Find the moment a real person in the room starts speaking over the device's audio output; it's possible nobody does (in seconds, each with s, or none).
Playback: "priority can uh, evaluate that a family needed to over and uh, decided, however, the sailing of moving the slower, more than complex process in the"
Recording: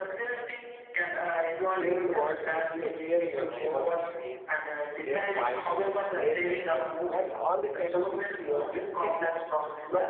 1.7 s